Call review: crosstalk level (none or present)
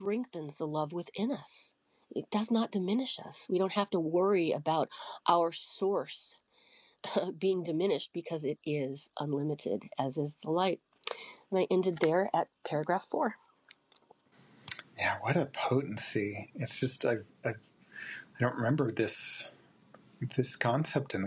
none